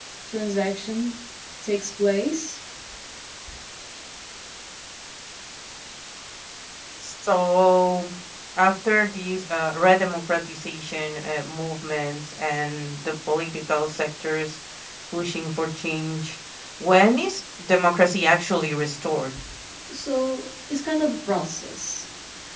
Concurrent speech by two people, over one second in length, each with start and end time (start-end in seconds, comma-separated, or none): none